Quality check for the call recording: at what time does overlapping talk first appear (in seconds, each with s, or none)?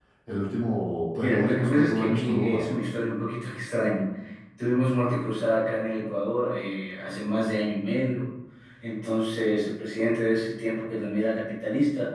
1.2 s